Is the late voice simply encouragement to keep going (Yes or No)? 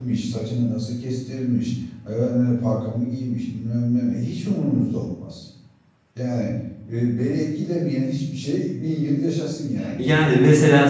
No